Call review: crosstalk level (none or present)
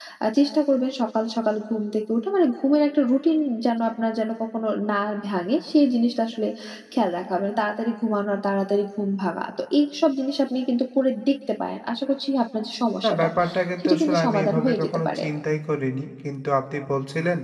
present